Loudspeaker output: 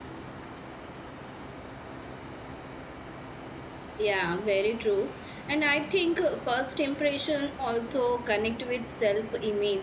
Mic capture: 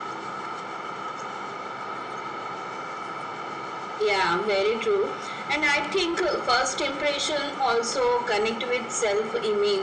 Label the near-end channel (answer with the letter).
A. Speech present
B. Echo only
B